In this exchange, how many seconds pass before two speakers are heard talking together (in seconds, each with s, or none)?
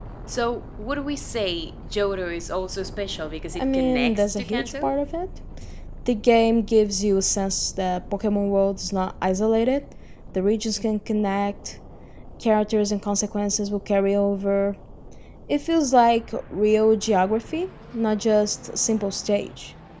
3.5 s